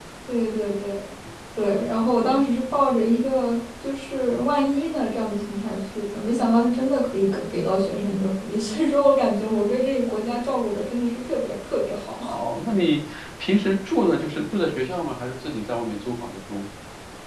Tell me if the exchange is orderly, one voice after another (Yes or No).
Yes